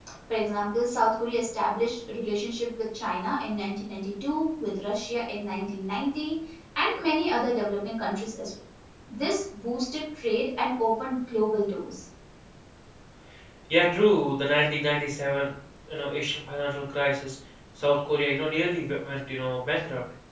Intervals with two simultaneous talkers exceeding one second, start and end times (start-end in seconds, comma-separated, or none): none